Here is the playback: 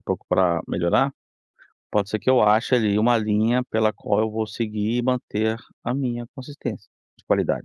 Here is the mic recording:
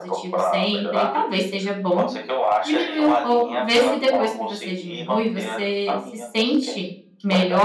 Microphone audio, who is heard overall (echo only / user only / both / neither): both